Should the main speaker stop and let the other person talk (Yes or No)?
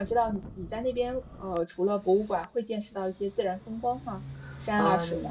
Yes